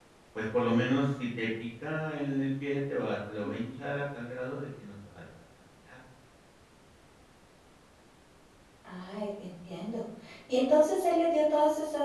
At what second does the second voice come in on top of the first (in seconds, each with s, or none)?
none